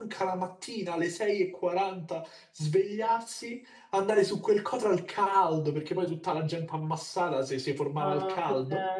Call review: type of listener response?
taking over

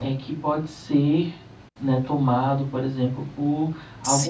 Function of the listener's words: listening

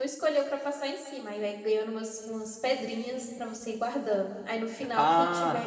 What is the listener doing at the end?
taking over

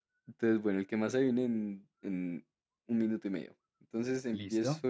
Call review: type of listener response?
listening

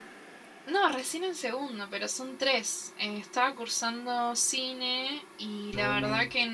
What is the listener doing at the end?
listening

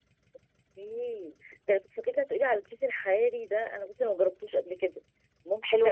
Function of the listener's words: taking over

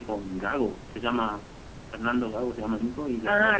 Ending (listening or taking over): taking over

